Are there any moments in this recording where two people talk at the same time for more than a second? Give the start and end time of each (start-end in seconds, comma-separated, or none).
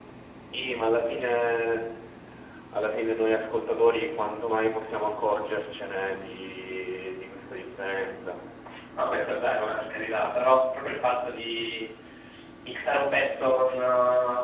none